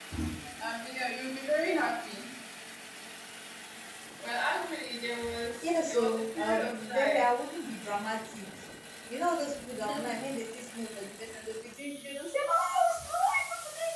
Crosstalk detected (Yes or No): Yes